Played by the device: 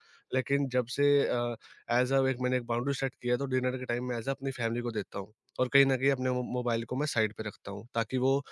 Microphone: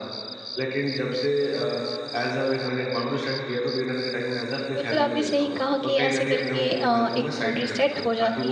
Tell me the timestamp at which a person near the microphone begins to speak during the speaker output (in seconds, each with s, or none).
4.8 s